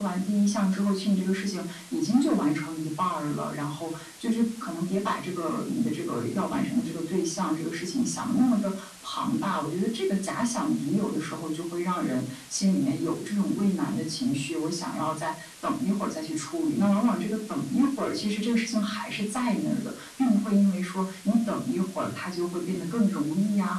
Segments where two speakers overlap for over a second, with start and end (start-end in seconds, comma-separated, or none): none